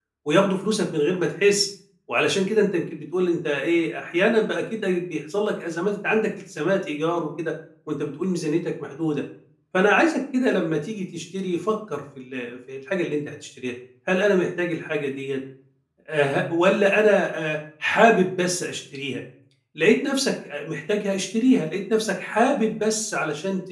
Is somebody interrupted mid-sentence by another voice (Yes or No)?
No